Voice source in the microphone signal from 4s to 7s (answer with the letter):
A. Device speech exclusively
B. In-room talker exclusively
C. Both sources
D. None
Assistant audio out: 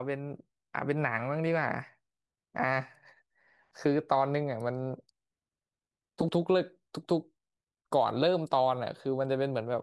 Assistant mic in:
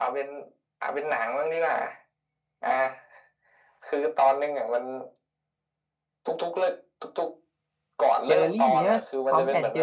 A